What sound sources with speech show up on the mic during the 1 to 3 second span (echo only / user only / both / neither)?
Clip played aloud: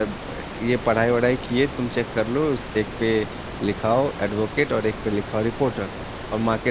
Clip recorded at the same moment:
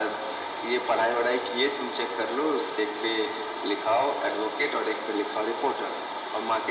echo only